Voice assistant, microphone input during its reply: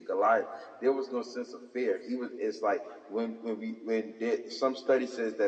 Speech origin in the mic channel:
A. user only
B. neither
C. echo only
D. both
C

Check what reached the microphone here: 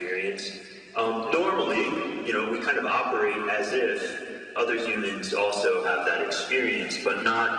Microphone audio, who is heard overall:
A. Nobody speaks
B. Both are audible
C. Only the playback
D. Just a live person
C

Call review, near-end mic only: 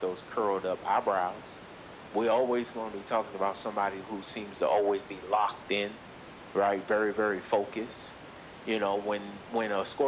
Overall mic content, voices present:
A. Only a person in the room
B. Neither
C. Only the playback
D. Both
C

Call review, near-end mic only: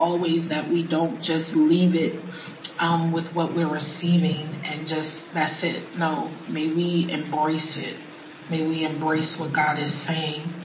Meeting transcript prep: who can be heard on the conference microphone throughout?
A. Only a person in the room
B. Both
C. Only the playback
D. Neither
C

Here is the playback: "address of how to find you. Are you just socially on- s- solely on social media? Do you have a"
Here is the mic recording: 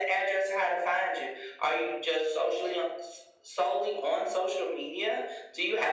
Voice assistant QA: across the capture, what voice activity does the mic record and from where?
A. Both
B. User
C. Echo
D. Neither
C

